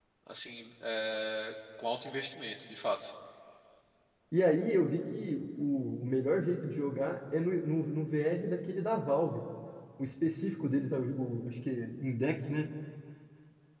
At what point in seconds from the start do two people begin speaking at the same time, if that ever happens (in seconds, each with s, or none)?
none